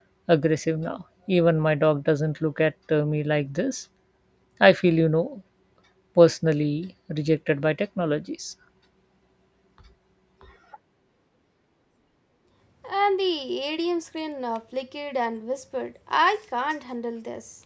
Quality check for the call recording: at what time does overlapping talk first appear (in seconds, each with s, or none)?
none